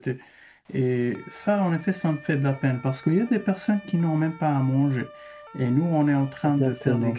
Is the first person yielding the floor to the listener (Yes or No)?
No